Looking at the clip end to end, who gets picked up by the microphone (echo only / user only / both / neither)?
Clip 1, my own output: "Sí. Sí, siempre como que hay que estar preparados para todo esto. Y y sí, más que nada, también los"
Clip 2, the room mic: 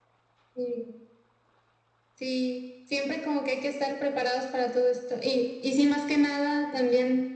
echo only